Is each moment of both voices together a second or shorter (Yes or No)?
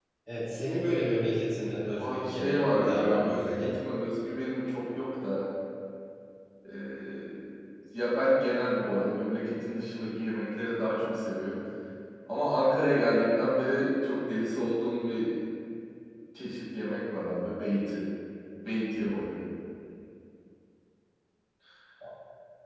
No